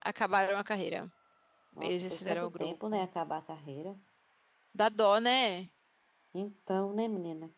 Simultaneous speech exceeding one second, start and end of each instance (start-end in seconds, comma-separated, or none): 1.8-3.0